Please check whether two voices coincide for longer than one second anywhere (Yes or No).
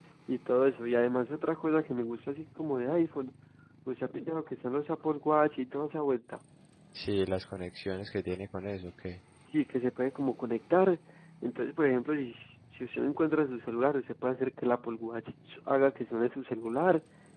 No